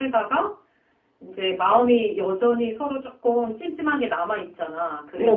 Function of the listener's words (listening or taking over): listening